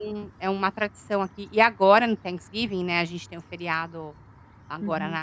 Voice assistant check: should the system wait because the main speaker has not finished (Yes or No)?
Yes